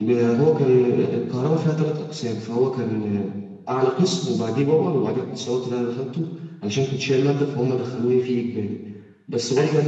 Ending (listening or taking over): listening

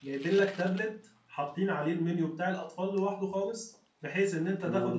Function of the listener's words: listening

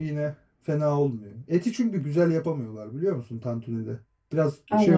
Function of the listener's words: listening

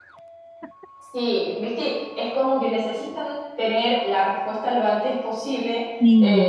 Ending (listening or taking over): listening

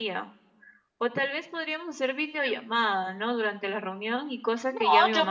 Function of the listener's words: taking over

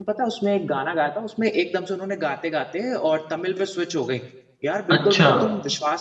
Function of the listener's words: listening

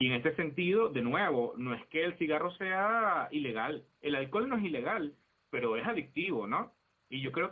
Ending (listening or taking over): listening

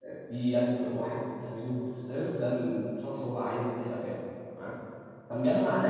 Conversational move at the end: listening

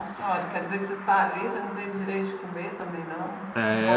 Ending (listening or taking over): taking over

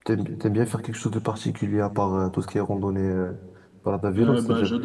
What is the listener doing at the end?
taking over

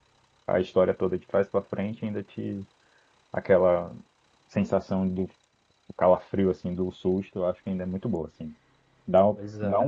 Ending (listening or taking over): listening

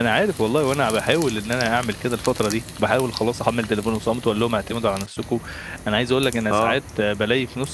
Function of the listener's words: listening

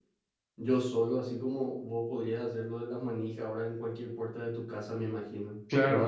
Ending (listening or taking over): taking over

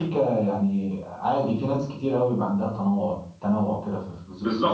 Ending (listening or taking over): taking over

